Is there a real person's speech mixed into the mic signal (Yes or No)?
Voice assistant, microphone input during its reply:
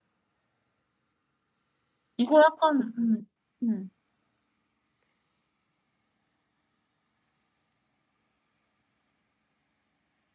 Yes